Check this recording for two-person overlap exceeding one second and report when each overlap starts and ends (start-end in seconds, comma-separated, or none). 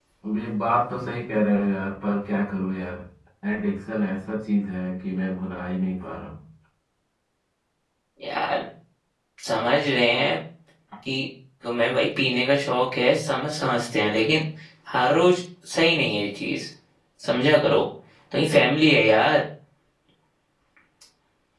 none